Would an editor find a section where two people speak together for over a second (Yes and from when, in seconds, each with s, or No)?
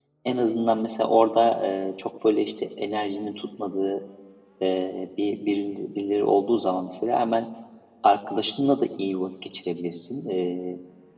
No